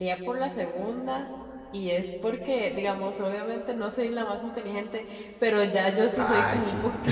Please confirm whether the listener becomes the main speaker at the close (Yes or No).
No